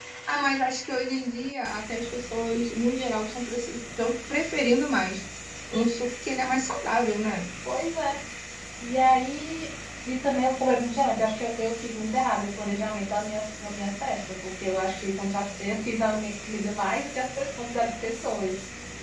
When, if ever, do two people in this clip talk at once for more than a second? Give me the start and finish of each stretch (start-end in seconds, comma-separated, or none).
none